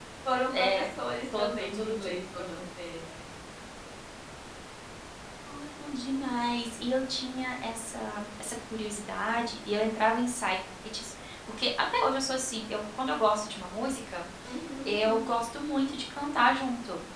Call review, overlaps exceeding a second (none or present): present